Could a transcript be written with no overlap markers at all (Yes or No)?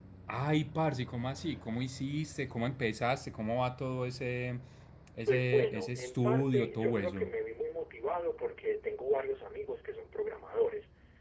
No